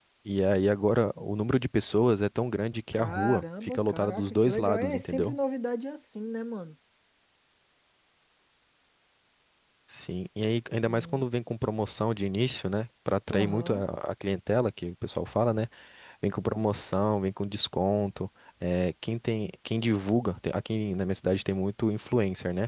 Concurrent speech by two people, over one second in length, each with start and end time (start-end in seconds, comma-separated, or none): 2.9-5.4